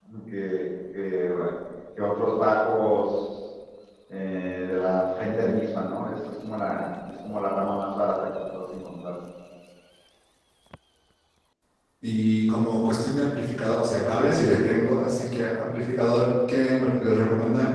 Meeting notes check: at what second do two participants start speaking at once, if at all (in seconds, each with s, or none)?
none